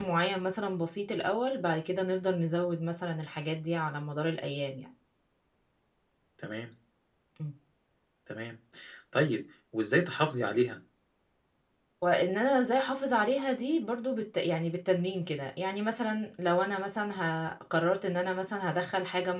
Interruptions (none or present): none